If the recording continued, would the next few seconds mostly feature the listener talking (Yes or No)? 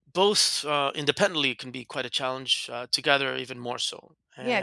Yes